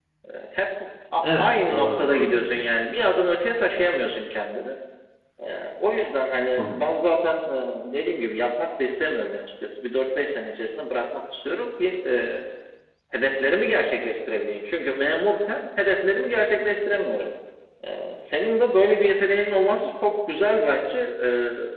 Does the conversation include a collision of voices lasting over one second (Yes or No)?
Yes